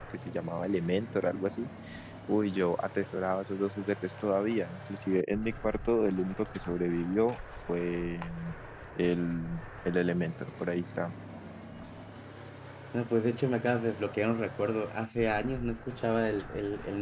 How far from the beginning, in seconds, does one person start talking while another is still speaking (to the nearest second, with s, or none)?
none